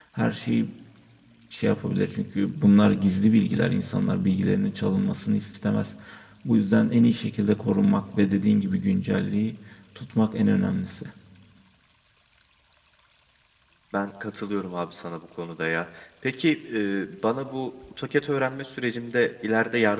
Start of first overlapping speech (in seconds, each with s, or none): none